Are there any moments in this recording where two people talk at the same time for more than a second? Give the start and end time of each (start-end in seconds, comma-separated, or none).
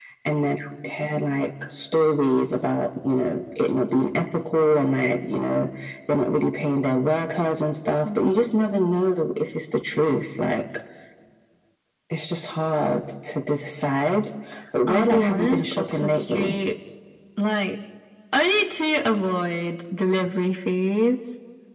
14.9-16.6